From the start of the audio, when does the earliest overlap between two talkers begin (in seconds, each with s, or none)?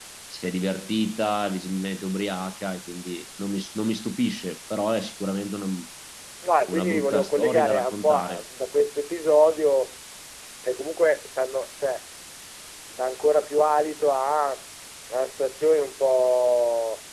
6.7 s